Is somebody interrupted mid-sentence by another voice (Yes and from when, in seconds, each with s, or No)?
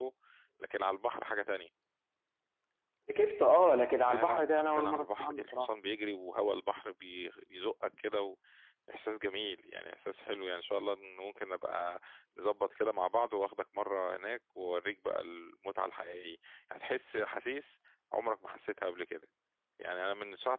Yes, from 4.0 s